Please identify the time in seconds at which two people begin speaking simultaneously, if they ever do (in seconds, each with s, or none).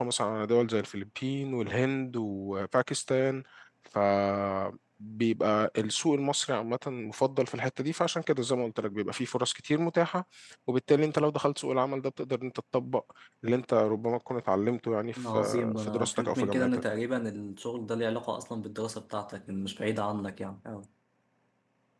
15.2 s